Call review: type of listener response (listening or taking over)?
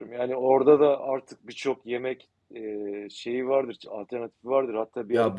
listening